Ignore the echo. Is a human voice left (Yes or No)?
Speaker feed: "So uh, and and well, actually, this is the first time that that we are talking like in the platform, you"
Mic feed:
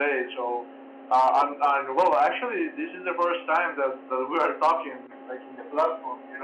No